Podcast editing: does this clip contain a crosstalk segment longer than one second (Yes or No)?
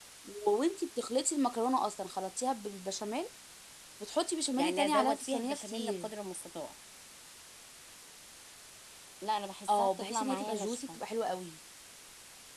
Yes